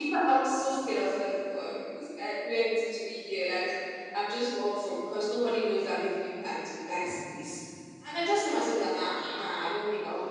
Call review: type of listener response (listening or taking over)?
listening